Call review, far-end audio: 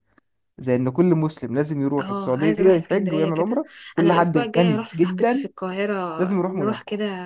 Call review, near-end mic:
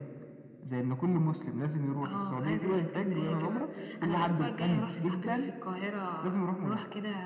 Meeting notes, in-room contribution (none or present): present